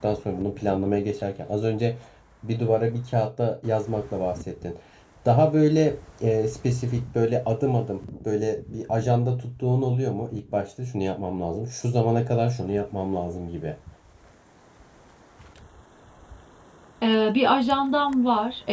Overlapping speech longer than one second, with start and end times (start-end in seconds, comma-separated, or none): none